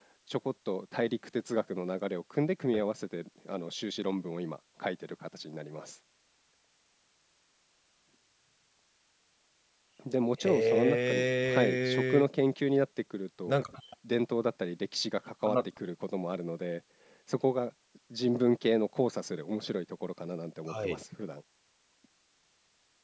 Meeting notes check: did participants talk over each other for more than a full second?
Yes, from 10.4 s

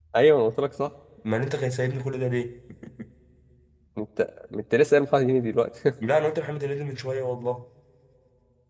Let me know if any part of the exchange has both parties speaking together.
No

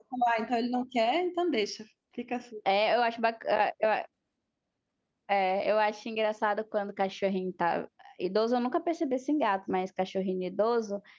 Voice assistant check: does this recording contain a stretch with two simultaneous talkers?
No

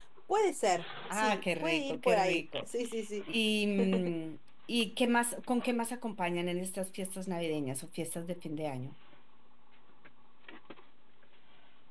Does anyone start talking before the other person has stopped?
Yes, from 1.1 s

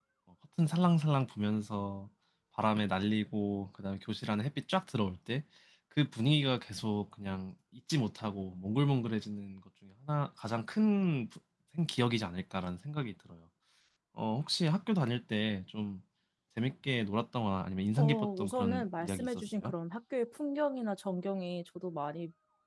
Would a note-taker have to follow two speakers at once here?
Yes, from 18.0 s

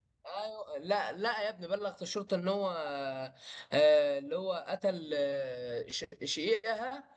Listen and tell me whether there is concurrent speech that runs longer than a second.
No

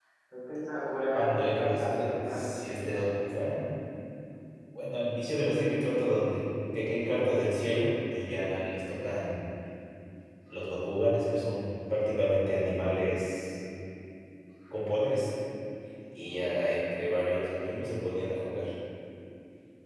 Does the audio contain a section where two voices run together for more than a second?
Yes, from 1.1 s

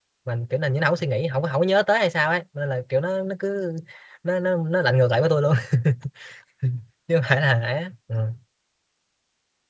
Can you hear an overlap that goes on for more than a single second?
No

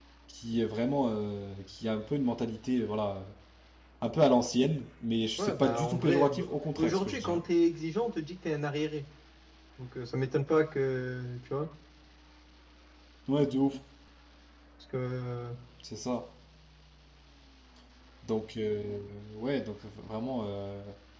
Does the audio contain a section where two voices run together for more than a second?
Yes, from 5.4 s

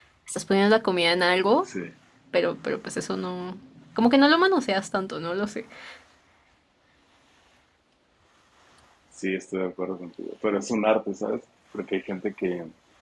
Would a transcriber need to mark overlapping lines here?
No

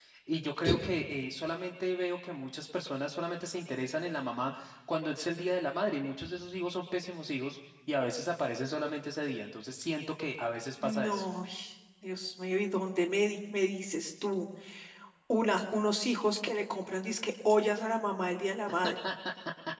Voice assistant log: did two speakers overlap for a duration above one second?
No

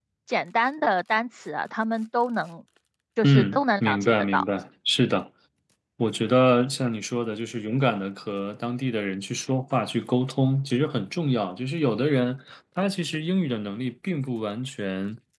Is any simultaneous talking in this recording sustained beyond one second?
Yes, from 3.2 s

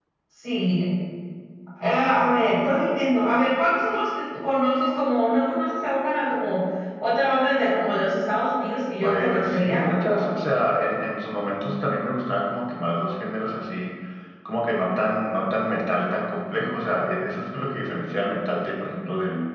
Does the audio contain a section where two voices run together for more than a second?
Yes, from 9.0 s

